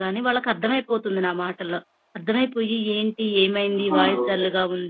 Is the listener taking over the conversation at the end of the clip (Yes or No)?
No